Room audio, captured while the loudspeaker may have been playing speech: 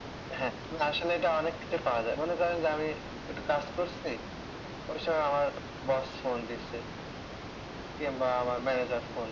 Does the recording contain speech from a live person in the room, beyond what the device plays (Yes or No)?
No